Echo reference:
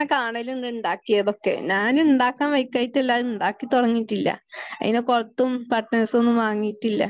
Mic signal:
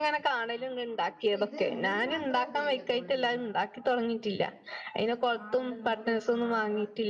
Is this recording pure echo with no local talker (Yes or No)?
No